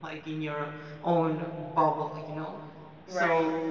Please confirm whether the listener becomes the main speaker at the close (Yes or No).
No